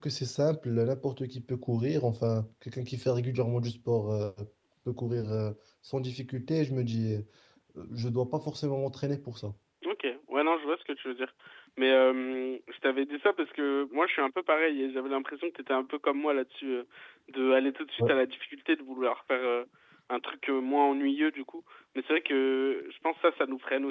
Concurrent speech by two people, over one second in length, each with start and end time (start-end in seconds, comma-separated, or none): none